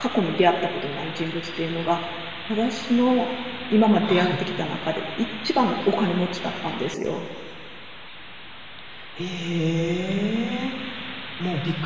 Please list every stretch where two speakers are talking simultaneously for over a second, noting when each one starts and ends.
none

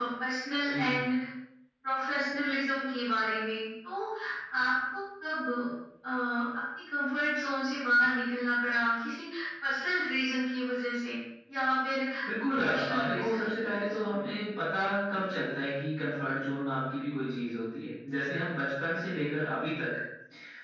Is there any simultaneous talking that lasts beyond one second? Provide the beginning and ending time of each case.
12.5-13.9

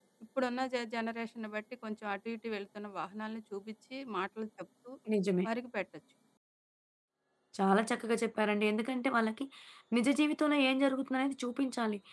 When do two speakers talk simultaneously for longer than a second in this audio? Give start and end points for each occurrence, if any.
none

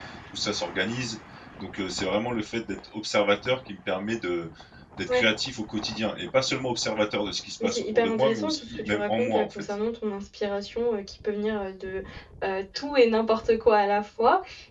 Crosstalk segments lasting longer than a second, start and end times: 7.6-9.6

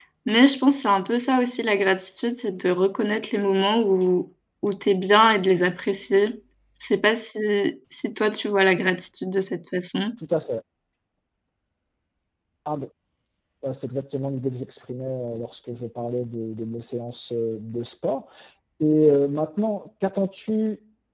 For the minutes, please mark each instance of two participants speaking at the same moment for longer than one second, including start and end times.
none

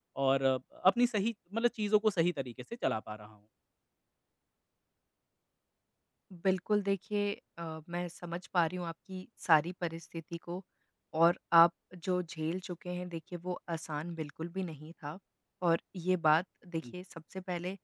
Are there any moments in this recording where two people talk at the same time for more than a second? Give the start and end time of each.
none

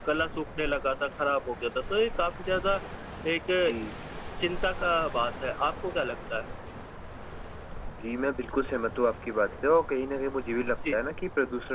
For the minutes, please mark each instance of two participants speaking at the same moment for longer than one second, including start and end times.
none

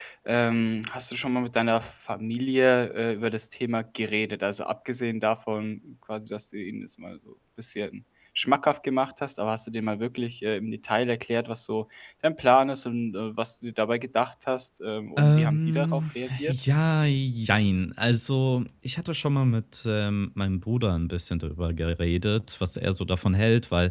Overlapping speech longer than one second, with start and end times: 15.2-16.5

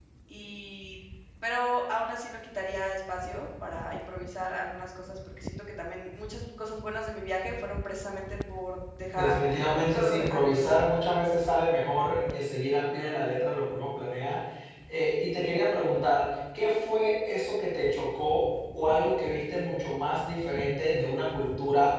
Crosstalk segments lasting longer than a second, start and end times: 9.1-10.8

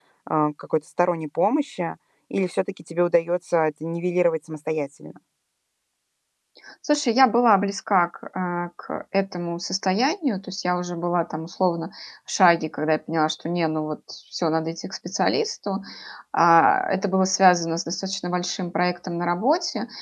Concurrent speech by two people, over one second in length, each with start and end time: none

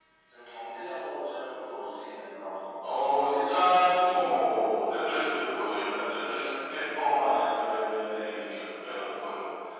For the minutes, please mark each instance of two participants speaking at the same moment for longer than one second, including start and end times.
2.9-4.4

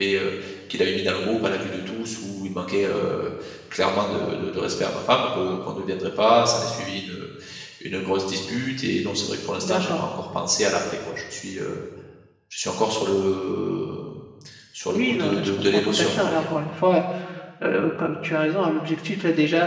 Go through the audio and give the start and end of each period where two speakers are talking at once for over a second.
14.9-16.5

